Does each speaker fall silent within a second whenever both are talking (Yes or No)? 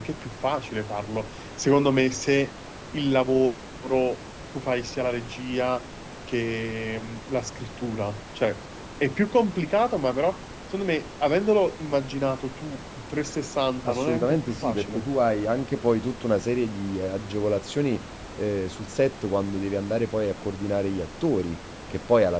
No